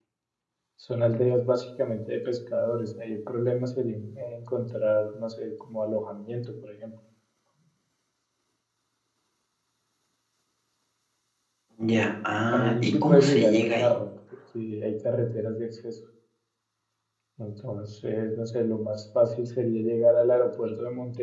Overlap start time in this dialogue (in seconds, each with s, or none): 12.5 s